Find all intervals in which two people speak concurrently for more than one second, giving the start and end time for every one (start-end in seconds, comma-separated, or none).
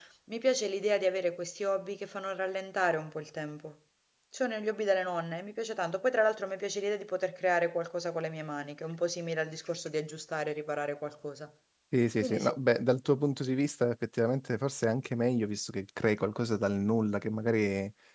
none